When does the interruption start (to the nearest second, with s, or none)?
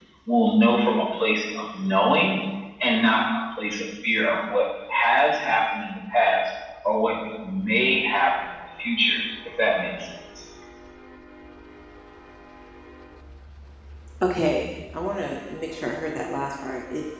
none